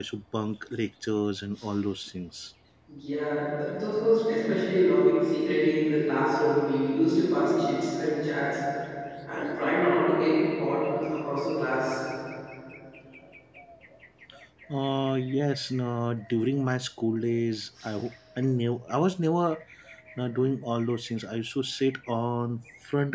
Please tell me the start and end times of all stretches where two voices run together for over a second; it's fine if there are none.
none

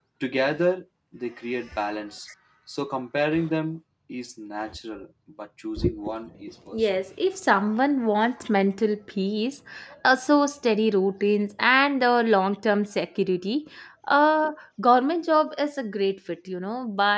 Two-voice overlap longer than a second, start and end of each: none

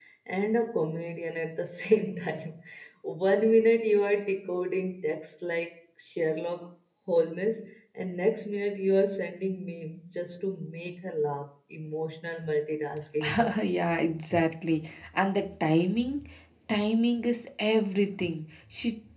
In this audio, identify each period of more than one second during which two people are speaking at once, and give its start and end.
none

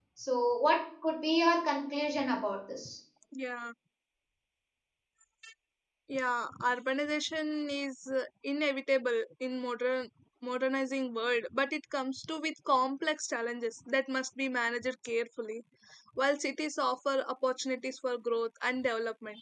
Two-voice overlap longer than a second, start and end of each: none

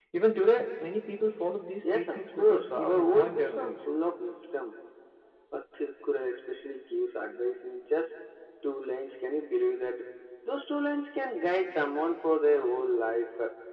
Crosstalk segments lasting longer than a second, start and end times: 1.8-3.8

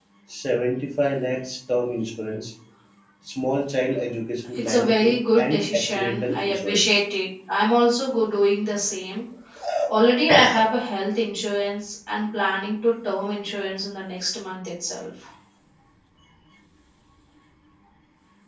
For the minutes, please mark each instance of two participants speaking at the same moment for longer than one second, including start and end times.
4.6-6.9

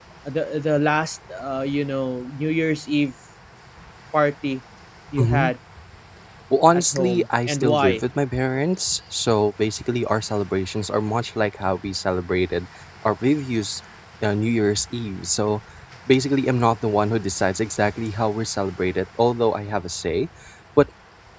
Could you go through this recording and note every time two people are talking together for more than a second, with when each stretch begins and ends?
6.7-8.0

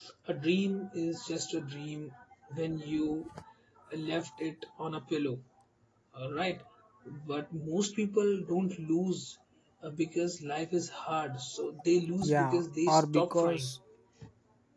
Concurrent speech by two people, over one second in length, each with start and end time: 12.2-13.7

